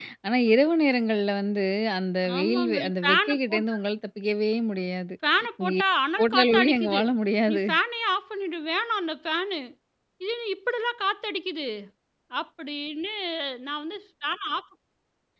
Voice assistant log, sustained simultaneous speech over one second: present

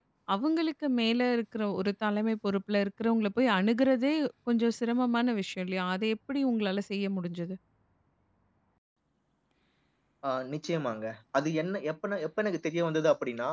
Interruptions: none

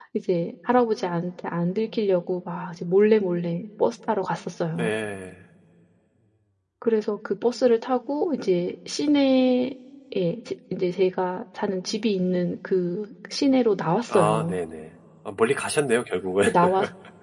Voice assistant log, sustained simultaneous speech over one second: none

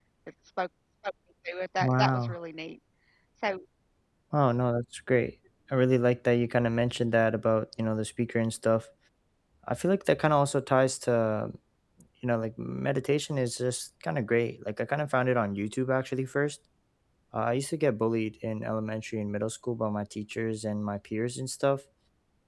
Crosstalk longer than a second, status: none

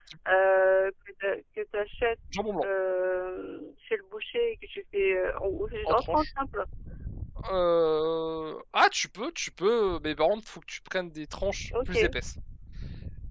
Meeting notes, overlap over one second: none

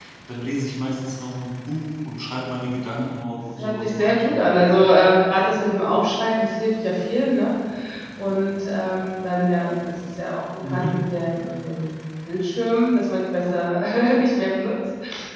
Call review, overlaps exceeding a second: present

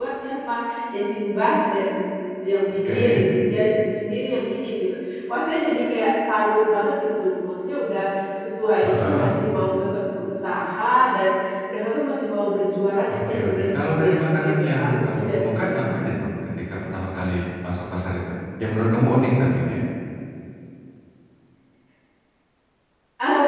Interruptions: present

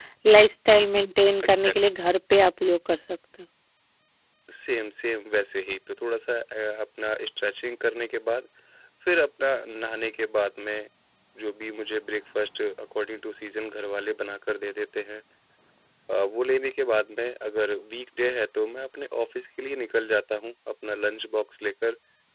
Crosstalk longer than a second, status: none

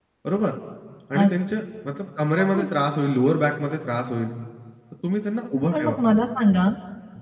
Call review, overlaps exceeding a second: none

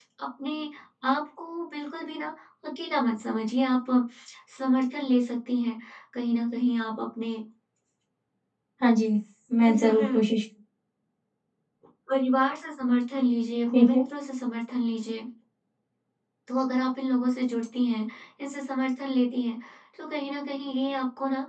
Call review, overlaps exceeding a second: none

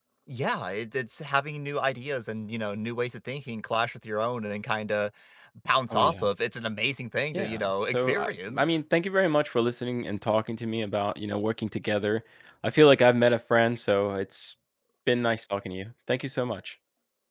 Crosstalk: present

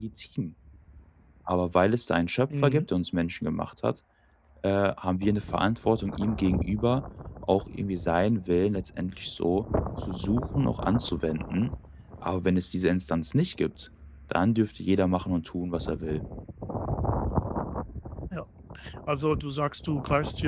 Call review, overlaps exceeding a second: none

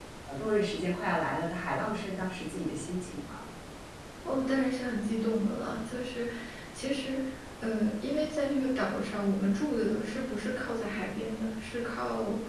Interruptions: none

